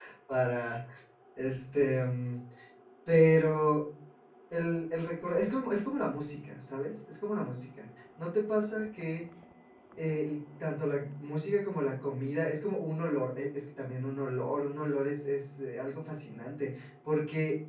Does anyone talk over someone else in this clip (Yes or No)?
No